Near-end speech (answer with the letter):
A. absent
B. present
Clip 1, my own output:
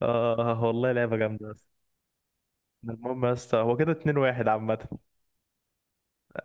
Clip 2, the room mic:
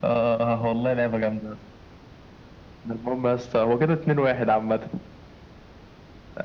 A